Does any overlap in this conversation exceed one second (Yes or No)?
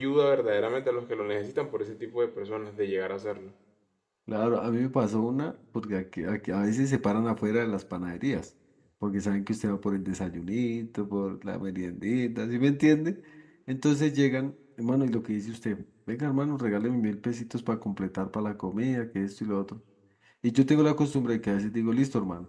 No